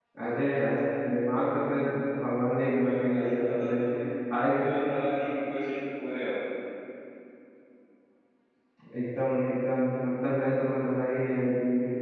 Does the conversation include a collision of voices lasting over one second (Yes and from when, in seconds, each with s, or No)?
Yes, from 2.6 s